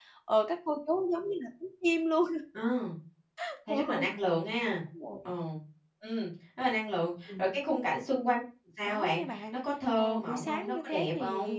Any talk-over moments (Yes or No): Yes